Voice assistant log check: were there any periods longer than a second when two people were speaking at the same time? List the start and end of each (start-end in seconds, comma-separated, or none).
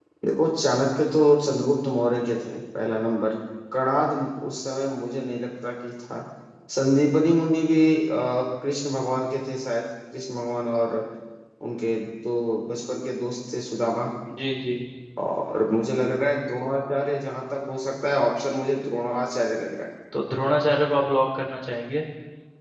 none